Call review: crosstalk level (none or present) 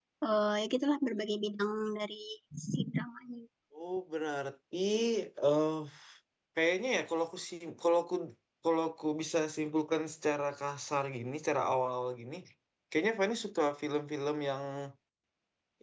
none